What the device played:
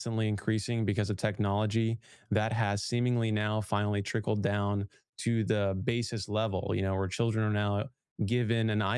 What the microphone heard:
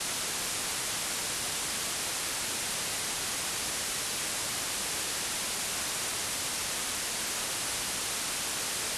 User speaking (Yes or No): No